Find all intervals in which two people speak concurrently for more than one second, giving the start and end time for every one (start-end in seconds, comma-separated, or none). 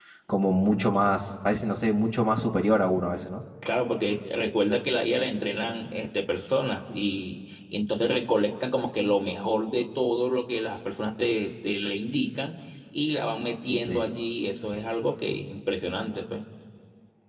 none